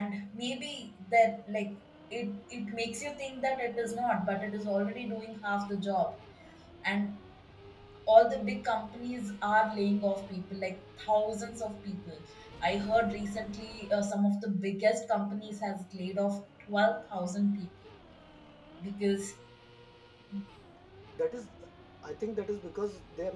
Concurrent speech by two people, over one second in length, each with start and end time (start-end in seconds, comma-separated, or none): none